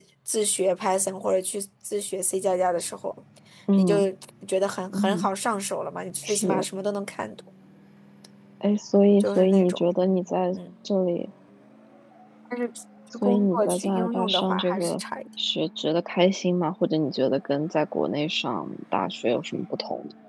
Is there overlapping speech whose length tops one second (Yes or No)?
Yes